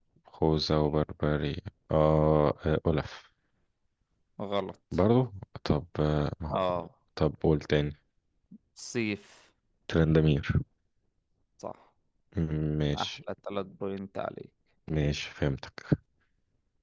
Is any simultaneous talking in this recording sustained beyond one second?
No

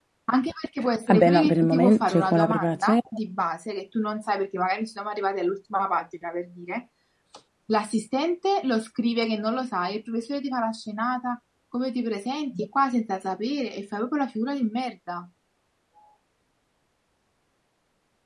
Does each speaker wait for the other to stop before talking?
No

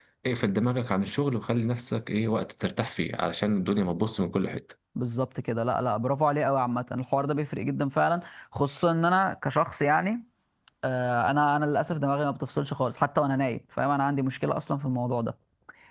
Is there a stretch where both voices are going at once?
No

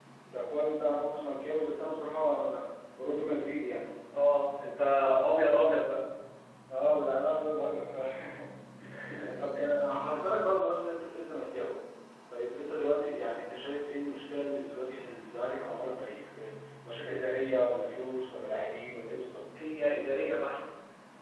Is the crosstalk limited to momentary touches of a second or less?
Yes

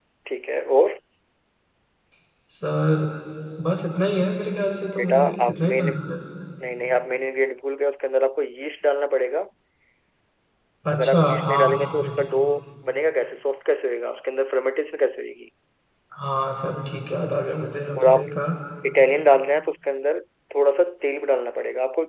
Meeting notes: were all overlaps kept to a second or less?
No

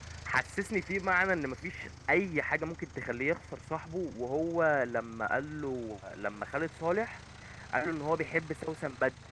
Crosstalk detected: No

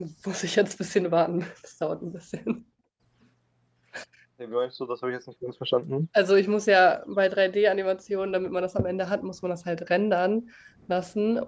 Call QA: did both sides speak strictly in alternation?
Yes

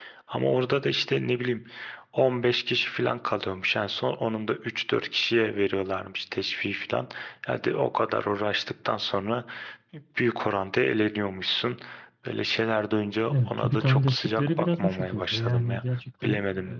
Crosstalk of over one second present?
Yes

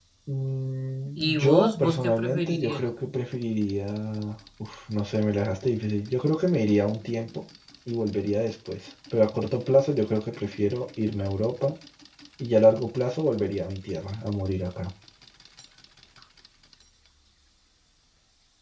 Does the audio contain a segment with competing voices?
Yes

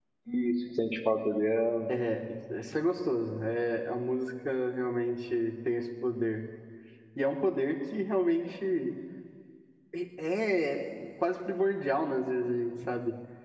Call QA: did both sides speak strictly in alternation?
Yes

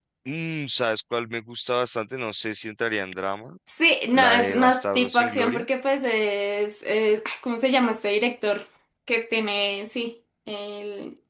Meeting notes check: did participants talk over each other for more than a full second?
Yes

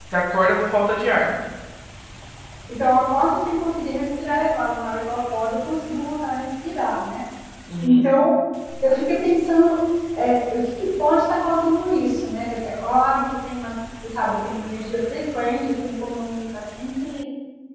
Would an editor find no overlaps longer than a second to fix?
Yes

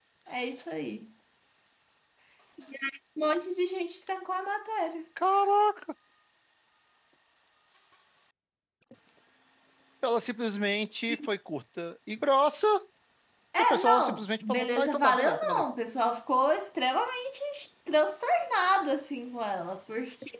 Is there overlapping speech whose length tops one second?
Yes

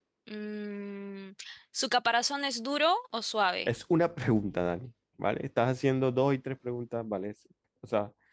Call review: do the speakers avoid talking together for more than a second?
Yes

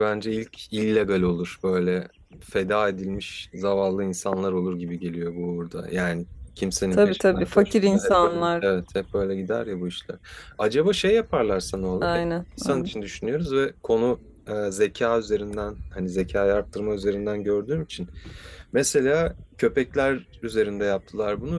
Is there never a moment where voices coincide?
No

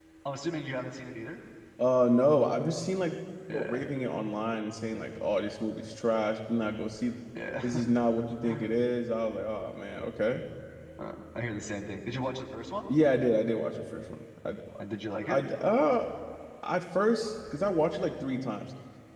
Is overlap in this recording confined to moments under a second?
Yes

